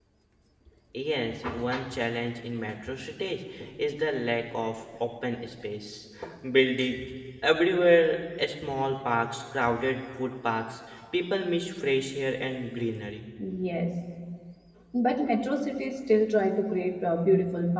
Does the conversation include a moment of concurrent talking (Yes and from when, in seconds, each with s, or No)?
No